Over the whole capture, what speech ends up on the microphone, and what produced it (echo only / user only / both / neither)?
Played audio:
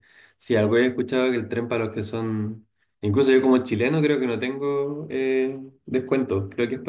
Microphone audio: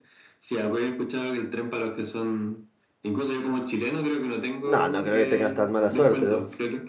both